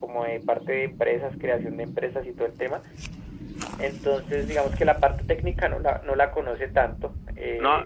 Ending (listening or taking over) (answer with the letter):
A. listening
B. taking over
B